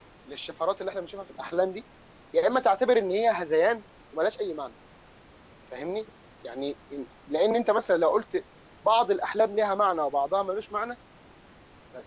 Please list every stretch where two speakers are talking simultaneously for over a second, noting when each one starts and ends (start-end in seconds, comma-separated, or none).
none